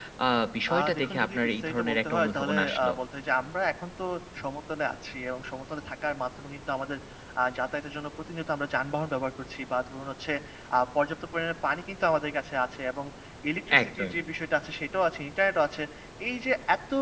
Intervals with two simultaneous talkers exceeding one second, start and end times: 0.7-2.9

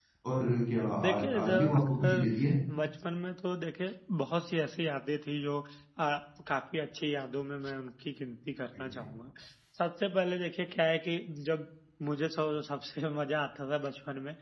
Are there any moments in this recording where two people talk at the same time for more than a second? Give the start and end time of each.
1.0-2.2

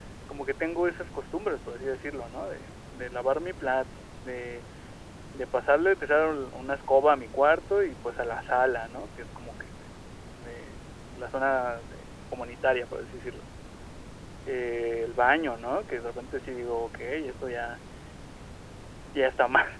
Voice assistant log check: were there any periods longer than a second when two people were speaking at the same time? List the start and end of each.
none

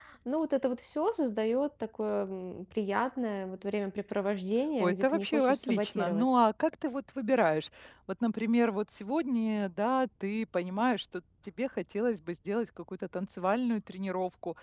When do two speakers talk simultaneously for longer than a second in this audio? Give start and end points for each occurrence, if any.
4.8-6.3

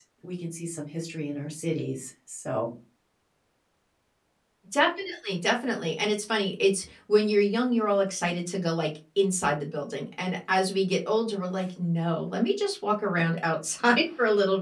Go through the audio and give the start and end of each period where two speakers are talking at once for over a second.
none

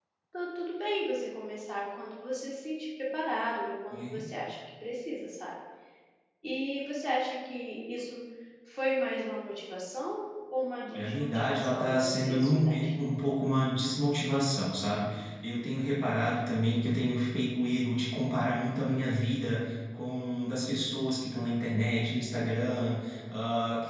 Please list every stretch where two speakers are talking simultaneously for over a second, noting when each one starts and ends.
10.9-12.9

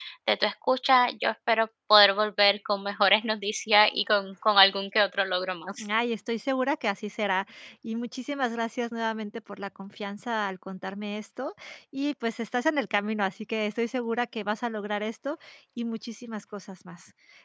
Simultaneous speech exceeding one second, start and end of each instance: none

